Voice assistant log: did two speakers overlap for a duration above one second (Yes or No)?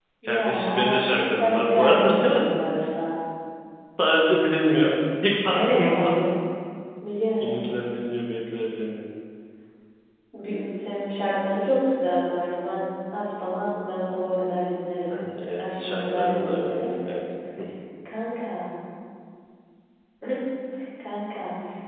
Yes